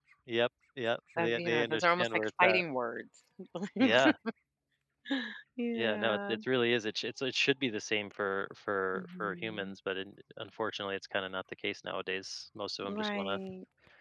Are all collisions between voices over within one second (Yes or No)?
No